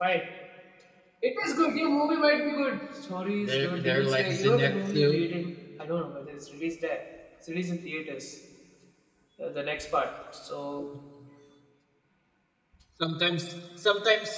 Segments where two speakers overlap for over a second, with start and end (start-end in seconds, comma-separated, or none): 3.4-5.2